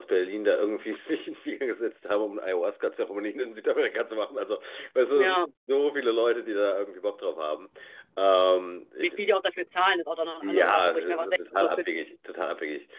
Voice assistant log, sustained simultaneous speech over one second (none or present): present